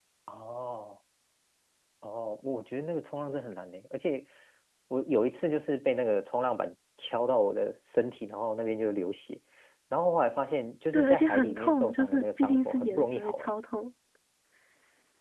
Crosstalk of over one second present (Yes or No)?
Yes